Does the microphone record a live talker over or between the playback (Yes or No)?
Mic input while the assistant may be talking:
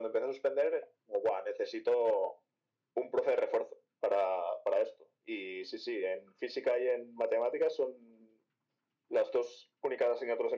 No